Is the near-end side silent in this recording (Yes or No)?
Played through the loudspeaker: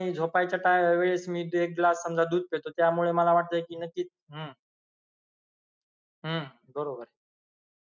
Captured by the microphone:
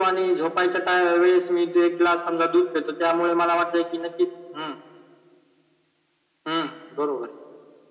Yes